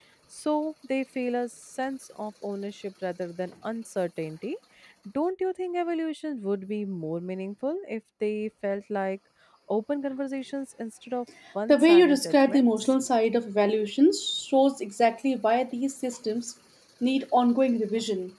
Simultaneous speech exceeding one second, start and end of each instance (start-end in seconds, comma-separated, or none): 11.7-12.9